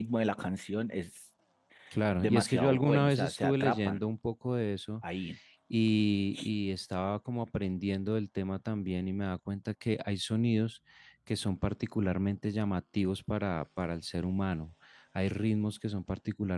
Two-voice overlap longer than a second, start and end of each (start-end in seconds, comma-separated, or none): 2.2-4.1